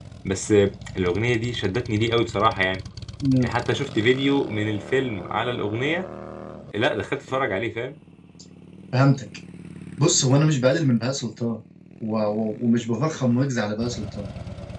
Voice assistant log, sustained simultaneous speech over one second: none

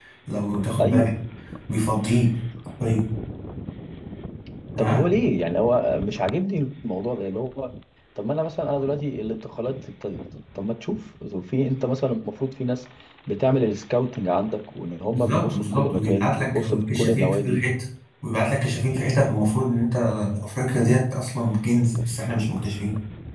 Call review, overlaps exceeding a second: present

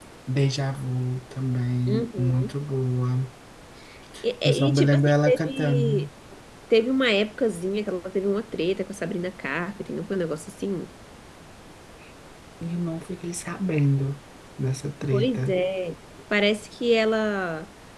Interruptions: present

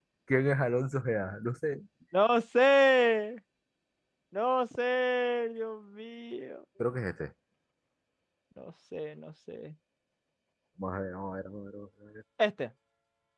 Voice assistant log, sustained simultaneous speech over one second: none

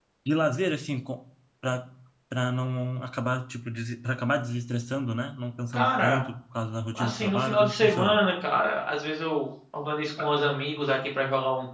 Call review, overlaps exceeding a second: present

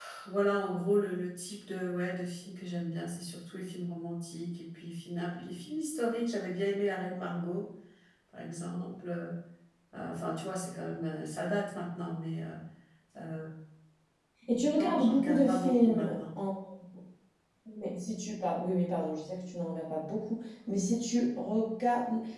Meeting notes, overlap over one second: present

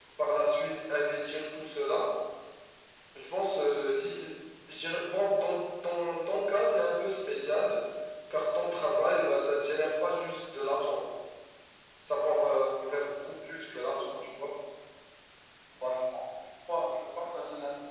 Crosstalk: none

